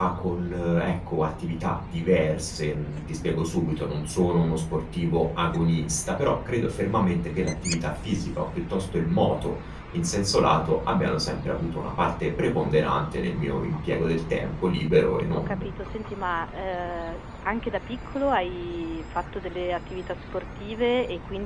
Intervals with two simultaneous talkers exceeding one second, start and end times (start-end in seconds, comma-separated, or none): none